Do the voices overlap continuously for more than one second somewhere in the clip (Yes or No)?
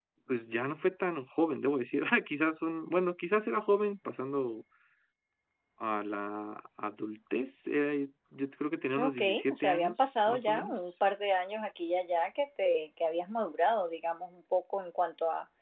Yes